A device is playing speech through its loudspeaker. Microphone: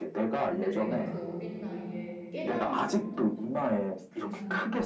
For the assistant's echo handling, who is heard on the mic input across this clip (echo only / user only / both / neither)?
both